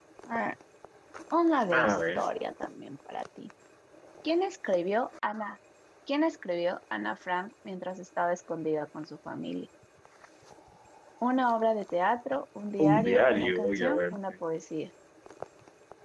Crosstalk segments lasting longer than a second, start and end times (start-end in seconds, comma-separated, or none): 12.8-14.2